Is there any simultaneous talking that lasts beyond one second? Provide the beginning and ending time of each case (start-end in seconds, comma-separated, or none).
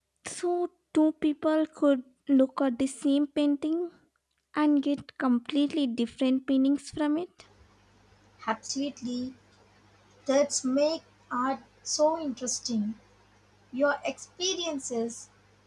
none